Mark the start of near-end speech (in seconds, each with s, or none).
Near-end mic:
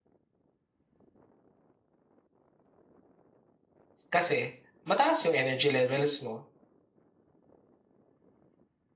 4.1 s